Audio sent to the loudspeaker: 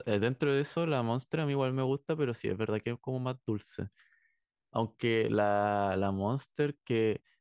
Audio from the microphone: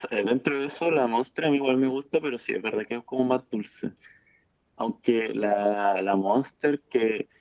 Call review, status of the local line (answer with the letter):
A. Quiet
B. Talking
A